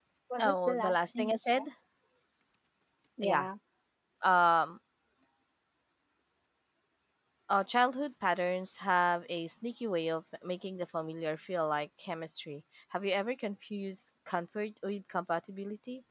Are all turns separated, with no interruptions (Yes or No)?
No